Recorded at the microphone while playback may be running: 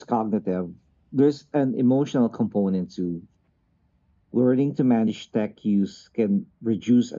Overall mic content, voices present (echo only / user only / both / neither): echo only